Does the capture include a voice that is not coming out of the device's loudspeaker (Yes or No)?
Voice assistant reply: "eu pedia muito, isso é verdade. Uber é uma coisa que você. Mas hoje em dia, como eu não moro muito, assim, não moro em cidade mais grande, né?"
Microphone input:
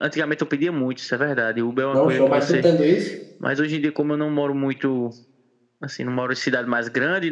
Yes